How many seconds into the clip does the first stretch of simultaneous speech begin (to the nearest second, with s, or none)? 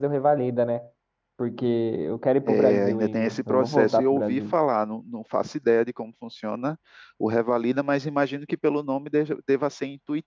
2 s